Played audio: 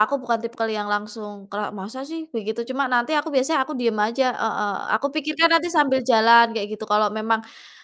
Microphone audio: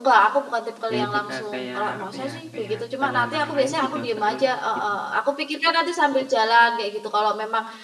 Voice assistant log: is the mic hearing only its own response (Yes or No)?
No